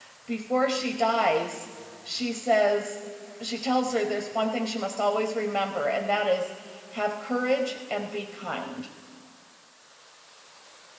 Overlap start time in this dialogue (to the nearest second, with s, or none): none